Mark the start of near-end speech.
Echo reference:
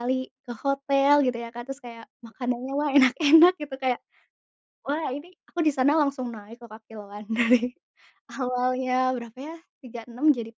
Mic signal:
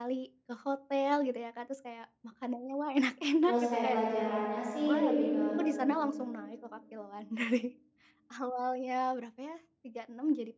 3 s

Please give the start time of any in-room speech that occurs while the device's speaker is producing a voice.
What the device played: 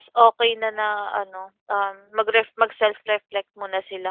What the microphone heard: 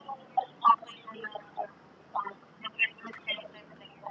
none

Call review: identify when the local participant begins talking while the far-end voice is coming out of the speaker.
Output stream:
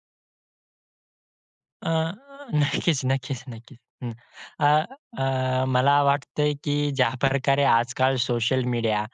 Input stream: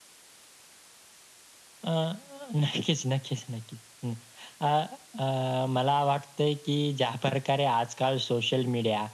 none

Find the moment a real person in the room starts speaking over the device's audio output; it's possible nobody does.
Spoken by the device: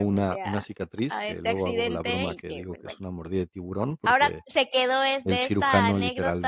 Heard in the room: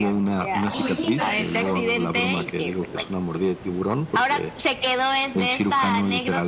1 s

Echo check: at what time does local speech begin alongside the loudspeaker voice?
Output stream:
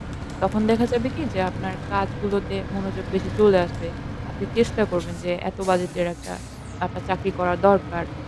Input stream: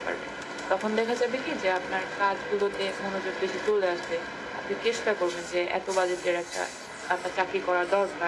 none

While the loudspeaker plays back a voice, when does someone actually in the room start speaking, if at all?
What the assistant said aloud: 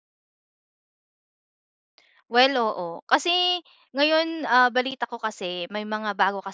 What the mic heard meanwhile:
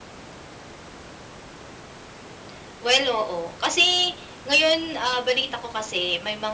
none

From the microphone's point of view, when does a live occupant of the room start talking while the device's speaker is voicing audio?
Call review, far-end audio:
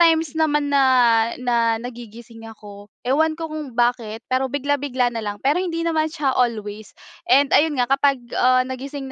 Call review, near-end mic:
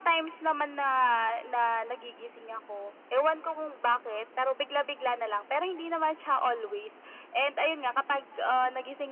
none

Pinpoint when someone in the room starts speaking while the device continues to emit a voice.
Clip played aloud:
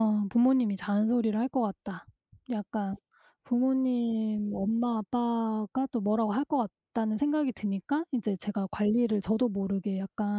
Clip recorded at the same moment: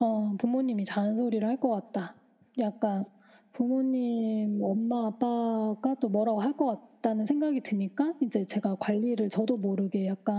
none

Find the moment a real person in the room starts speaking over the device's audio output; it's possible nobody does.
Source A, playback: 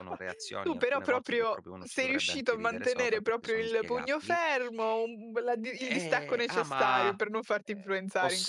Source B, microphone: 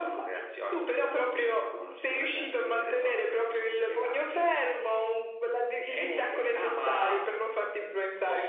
none

